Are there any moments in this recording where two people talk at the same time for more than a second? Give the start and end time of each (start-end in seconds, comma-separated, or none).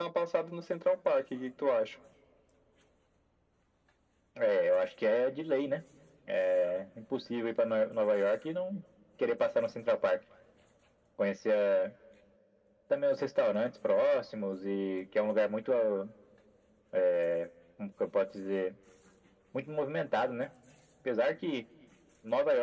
none